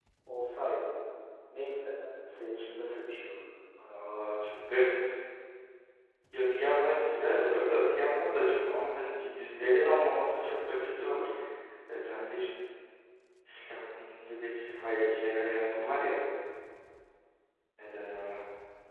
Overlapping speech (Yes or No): No